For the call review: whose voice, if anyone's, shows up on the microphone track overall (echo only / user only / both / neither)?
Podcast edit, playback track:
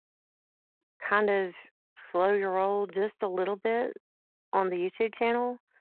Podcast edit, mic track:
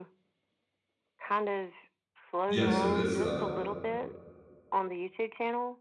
both